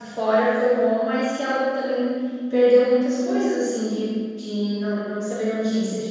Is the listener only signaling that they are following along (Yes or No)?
Yes